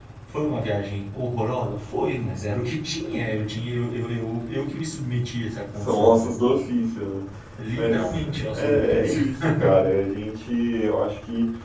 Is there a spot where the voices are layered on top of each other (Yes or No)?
Yes